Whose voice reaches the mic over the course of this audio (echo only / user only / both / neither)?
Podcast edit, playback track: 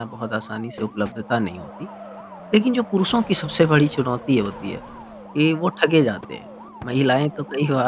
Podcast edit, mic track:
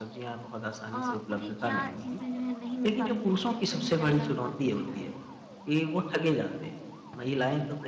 both